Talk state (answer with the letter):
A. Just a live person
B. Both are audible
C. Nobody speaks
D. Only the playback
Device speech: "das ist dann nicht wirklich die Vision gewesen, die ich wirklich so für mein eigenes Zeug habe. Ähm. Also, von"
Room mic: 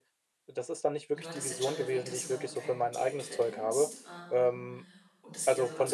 B